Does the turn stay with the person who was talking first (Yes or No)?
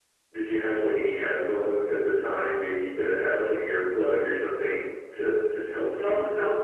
No